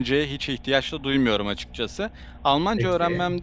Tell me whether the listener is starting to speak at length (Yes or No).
No